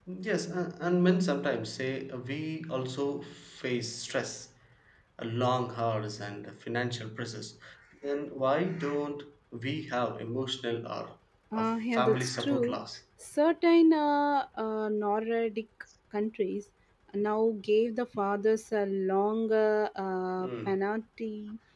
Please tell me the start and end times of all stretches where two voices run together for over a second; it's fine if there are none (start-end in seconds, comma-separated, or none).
11.5-12.8